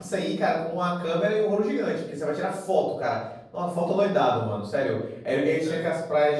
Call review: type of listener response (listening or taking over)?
listening